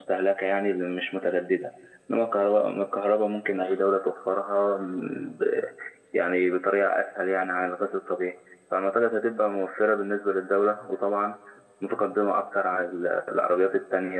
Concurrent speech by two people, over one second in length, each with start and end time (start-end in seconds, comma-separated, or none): none